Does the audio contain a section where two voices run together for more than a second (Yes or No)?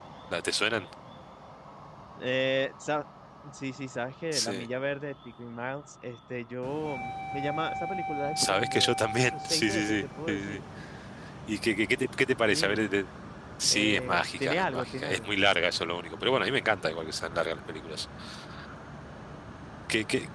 Yes